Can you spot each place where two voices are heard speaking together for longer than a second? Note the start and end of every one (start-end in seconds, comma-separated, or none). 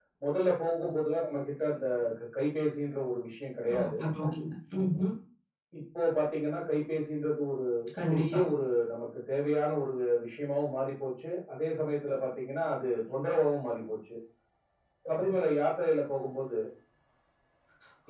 none